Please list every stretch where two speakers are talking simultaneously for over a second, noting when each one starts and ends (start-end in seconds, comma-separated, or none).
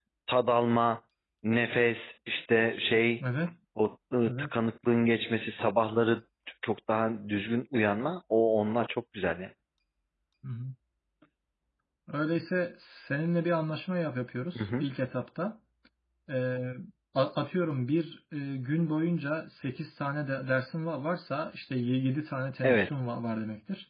none